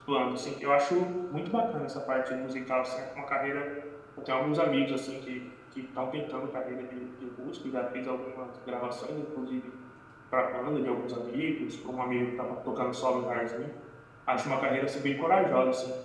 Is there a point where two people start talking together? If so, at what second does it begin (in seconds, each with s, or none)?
none